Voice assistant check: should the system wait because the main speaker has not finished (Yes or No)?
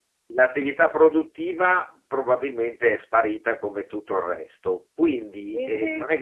Yes